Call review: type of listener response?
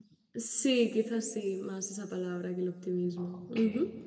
taking over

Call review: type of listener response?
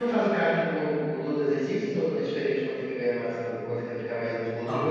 listening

